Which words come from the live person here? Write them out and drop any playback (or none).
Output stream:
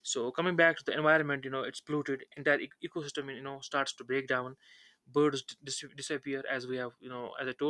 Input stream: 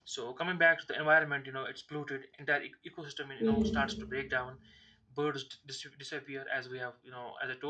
yes.